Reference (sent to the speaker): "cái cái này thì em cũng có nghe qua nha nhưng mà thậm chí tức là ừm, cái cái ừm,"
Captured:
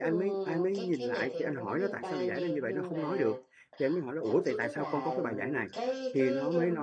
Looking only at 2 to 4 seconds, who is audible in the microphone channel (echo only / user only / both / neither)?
both